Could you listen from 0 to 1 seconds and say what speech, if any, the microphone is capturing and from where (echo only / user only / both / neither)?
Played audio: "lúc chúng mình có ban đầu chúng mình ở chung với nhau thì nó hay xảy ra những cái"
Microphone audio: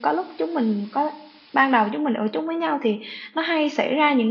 echo only